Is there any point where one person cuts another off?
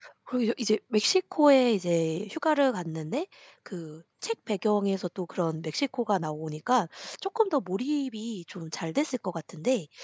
No

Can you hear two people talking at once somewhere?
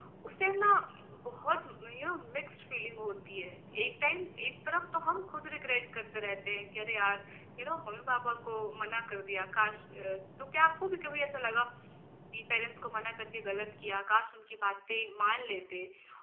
No

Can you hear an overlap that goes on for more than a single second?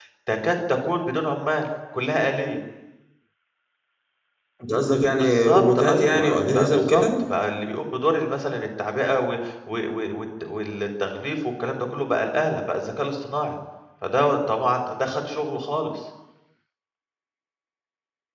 Yes, from 5.2 s

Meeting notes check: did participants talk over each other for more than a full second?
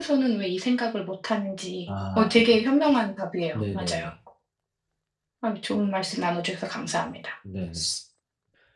No

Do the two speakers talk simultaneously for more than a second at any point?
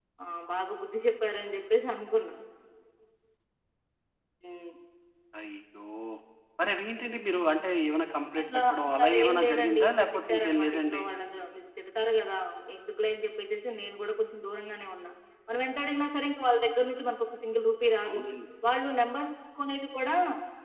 Yes, from 8.3 s

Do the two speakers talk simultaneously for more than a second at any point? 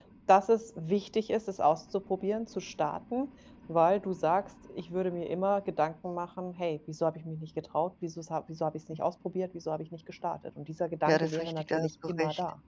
Yes, from 11.1 s

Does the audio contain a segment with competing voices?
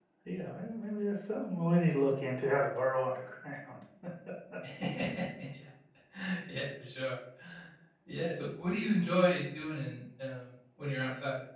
No

